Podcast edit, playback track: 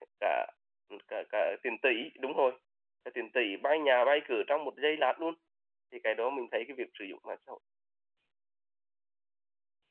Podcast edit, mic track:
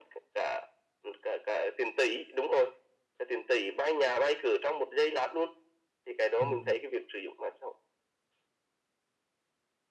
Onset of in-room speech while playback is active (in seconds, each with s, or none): 6.4 s